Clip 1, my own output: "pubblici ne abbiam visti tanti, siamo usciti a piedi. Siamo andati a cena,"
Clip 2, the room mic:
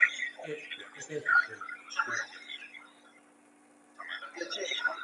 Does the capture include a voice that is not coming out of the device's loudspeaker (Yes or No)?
Yes